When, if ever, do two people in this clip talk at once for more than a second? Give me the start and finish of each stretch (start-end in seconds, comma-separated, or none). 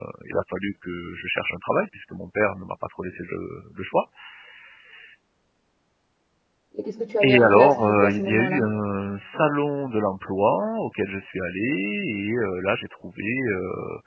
7.2-8.6